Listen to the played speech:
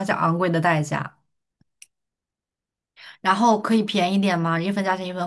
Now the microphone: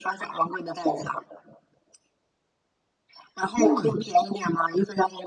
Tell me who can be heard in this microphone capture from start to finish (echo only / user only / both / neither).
both